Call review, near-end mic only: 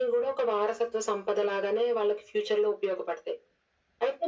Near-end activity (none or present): none